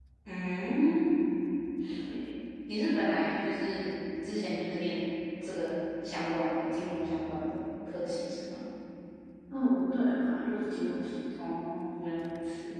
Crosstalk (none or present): none